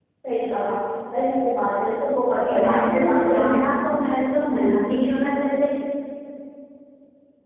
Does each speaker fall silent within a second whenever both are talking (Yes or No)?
No